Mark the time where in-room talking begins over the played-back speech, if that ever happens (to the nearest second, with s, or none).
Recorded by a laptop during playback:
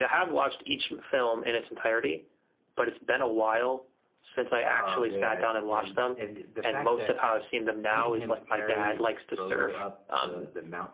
5 s